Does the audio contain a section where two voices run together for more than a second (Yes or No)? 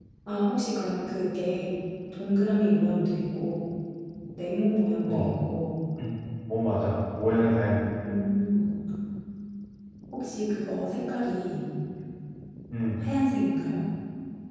No